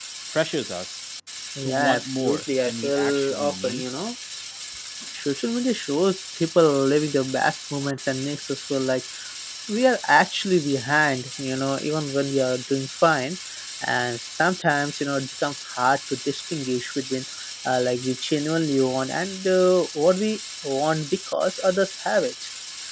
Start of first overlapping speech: 2 s

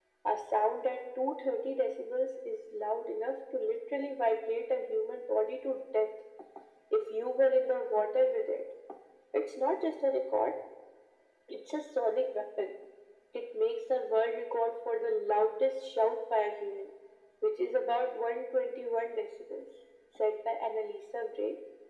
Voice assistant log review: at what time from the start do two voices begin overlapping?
none

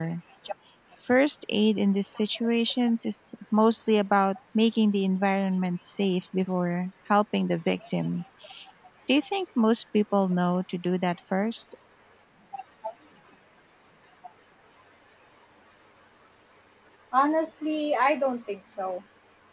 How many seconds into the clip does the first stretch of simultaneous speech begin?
none

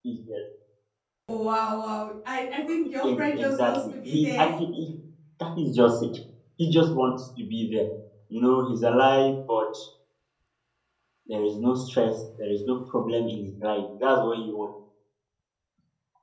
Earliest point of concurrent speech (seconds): 3 s

